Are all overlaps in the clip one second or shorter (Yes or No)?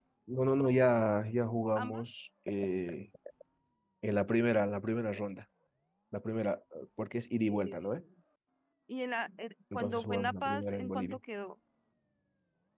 No